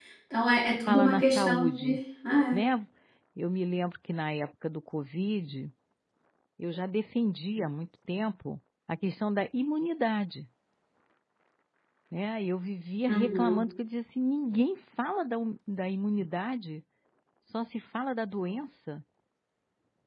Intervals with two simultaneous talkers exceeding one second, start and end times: 0.7-2.0

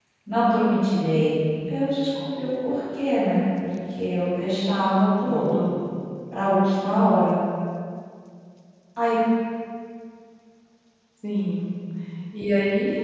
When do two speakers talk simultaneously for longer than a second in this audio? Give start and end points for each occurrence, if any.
none

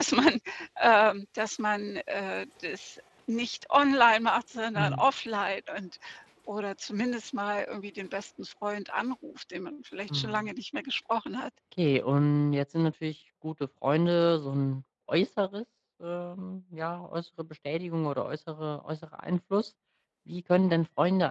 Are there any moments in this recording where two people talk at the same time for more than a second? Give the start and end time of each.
none

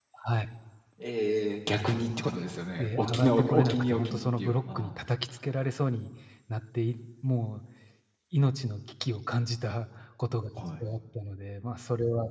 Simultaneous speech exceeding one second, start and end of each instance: 2.8-5.0

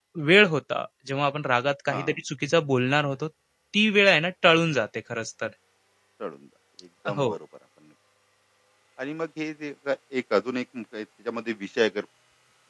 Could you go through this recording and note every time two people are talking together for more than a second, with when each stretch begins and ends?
none

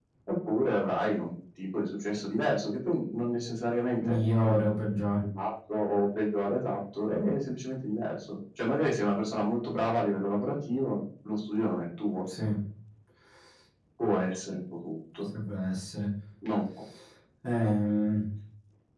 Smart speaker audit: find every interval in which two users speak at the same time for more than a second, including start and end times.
none

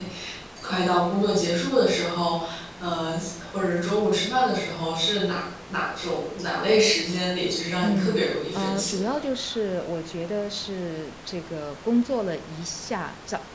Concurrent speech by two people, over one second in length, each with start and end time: 7.8-9.2

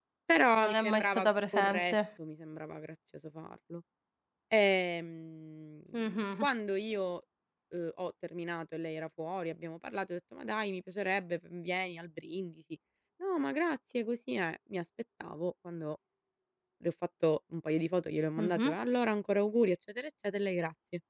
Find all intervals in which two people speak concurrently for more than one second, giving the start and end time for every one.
0.5-1.9

